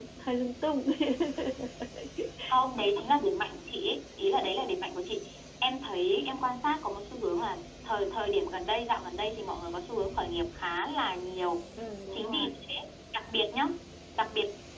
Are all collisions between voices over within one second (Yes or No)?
Yes